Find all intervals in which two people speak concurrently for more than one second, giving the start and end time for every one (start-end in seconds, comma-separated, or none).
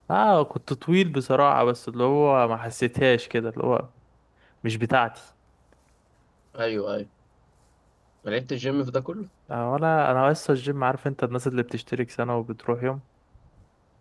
none